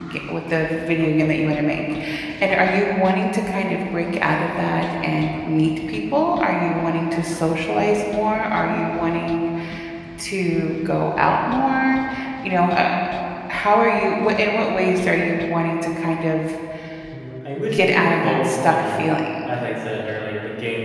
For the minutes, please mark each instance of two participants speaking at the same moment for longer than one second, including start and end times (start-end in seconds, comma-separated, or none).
17.7-19.1